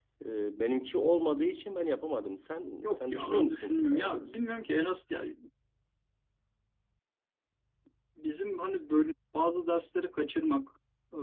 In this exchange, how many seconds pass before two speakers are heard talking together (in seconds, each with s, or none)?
2.8 s